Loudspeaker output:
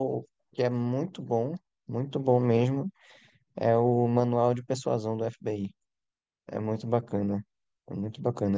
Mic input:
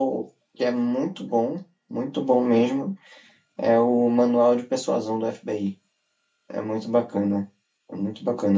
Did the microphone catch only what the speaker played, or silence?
Yes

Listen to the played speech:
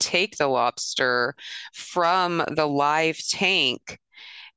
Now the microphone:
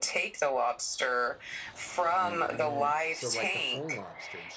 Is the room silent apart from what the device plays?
No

